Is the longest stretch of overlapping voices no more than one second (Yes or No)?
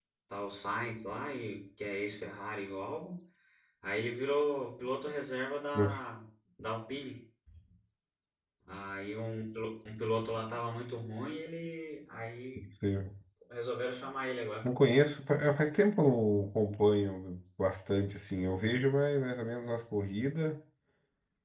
Yes